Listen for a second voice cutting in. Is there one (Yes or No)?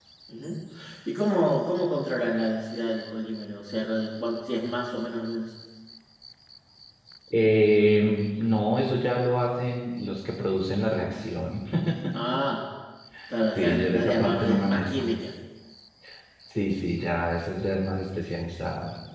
Yes